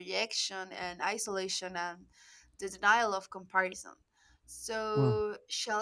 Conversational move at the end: listening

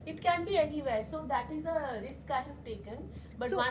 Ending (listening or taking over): listening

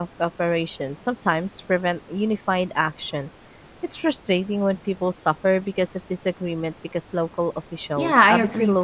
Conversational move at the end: taking over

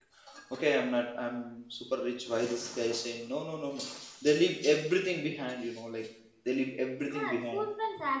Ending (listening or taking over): taking over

